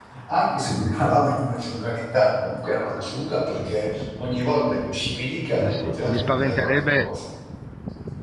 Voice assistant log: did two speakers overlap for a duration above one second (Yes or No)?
Yes